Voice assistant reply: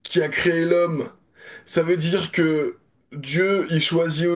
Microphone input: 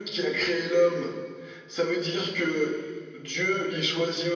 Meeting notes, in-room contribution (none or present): none